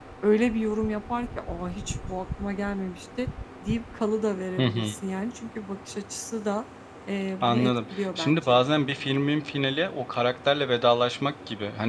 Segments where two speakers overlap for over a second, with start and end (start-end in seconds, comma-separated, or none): 7.4-8.6